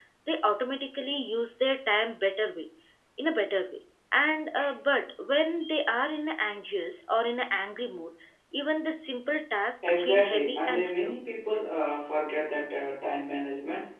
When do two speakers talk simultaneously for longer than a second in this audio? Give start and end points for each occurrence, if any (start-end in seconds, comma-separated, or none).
9.9-11.2